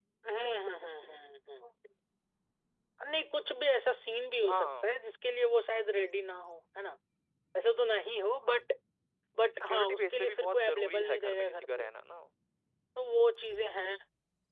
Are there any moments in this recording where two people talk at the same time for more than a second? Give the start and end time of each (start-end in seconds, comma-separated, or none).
9.7-11.9